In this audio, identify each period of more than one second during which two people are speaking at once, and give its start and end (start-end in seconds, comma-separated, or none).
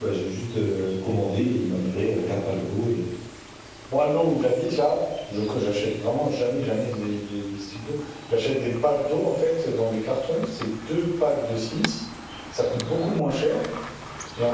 none